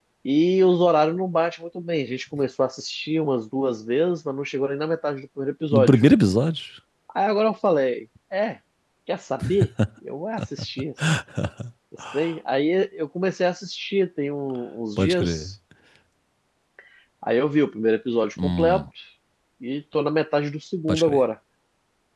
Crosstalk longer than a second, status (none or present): none